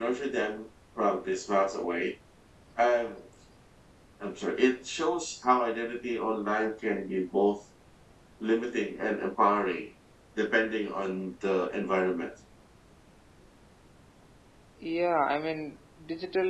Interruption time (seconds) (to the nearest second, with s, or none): none